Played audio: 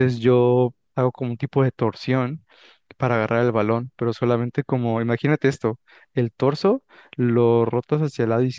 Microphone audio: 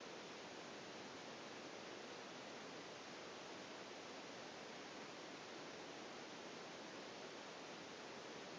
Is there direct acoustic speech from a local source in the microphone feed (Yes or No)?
No